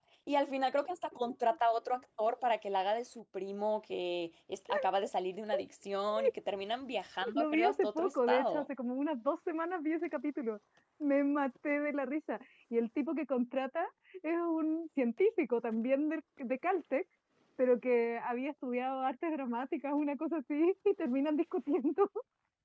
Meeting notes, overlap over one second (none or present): present